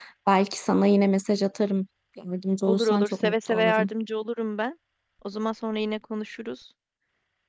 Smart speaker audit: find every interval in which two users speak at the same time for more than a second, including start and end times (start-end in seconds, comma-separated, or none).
2.6-3.9